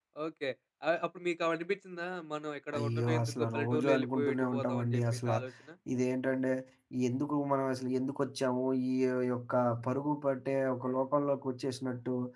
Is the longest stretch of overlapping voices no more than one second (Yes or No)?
No